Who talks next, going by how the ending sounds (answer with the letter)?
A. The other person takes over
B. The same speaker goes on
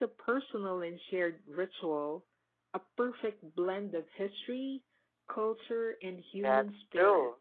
A